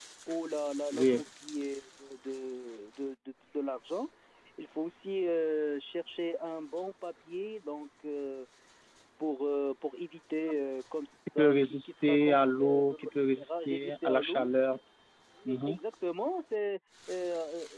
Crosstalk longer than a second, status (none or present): present